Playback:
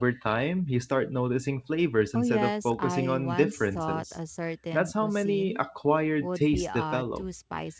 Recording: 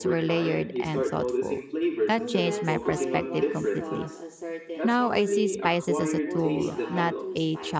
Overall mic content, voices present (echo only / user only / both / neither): both